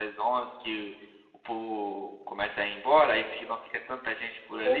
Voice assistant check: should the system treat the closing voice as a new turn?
Yes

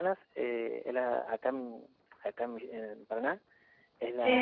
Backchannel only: Yes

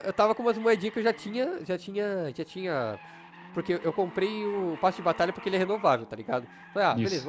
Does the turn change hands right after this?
No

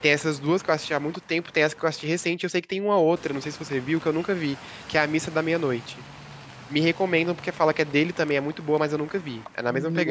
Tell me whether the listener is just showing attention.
No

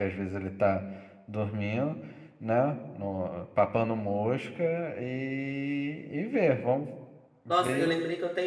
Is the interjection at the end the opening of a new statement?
Yes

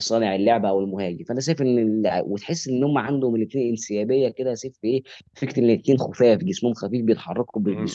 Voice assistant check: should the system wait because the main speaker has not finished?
No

